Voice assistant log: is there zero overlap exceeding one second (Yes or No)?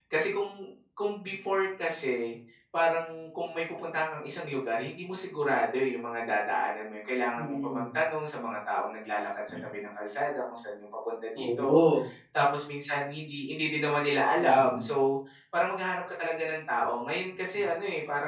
Yes